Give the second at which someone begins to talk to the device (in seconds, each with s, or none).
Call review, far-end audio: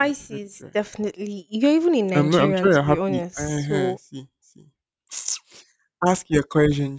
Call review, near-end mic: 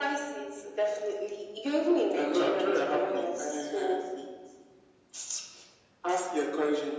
none